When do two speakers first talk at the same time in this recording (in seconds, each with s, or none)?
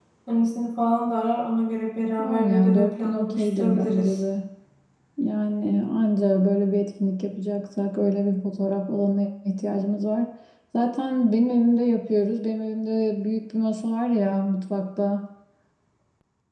2.2 s